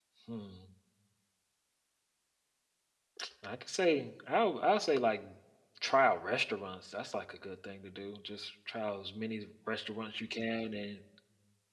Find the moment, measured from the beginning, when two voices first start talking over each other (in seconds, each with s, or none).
none